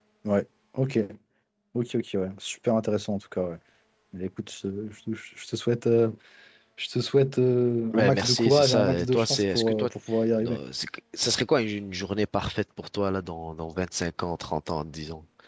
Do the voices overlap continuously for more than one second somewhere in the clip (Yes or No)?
Yes